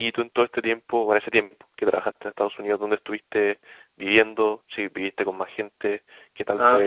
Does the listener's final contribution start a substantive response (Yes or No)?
Yes